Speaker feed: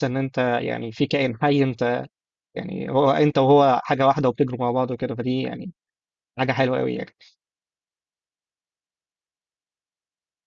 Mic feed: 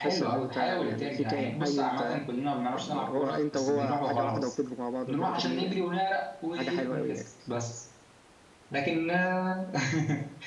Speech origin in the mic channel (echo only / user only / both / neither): both